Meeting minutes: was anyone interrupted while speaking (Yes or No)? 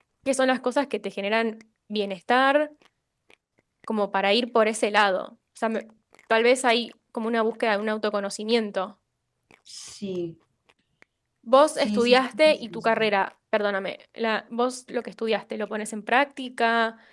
Yes